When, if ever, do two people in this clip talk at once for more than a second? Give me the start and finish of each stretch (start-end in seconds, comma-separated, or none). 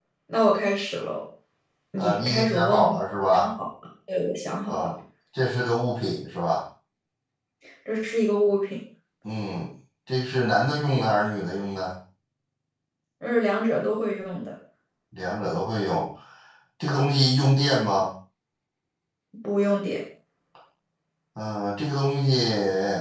2.0-3.5